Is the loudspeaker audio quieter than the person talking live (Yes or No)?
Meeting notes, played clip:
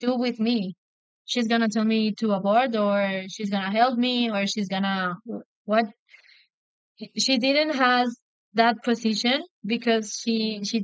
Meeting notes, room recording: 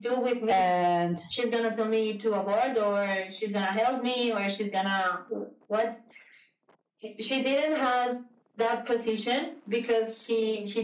Yes